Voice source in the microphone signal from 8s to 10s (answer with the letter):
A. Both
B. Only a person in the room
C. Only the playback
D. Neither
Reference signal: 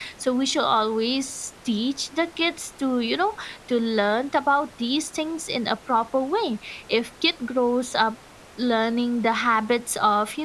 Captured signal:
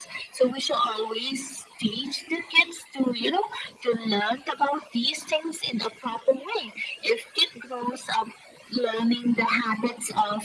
C